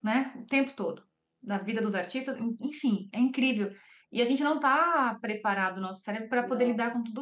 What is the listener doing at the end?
listening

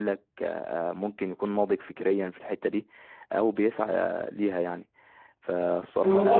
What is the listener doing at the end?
taking over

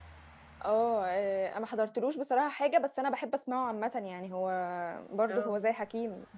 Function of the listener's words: listening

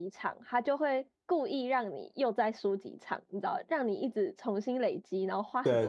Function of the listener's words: taking over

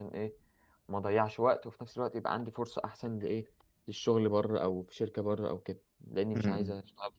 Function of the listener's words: taking over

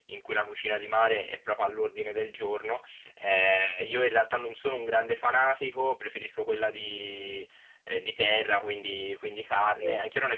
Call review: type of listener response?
listening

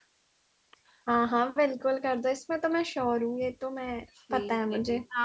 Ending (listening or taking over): taking over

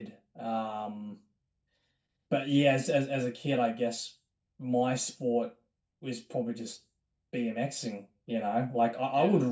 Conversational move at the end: taking over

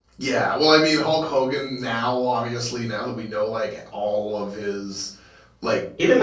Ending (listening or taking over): taking over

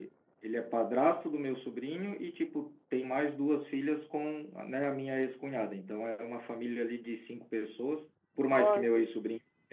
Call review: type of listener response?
listening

